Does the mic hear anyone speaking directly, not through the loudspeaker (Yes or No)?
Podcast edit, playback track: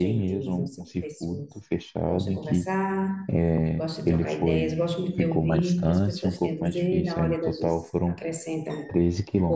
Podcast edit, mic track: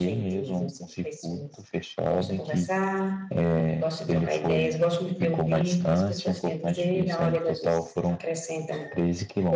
No